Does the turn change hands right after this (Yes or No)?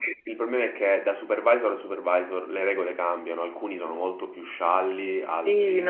Yes